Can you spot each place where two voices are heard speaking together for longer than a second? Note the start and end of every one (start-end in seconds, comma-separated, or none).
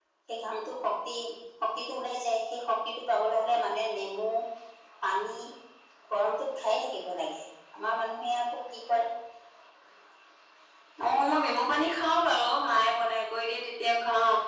none